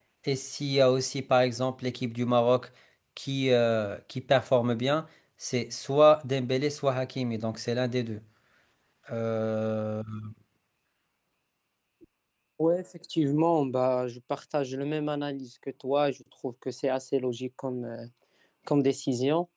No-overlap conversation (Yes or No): Yes